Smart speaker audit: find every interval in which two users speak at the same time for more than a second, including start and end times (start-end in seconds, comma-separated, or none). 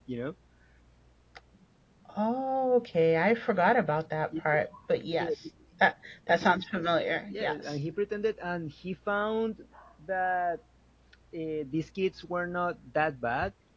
none